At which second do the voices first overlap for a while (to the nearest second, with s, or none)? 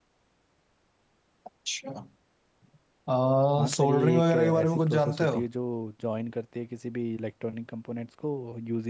4 s